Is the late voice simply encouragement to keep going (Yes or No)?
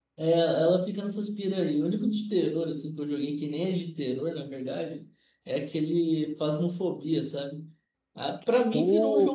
Yes